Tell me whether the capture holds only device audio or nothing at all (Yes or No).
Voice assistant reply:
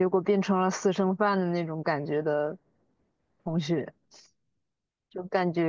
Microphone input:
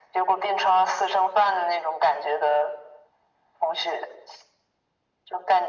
Yes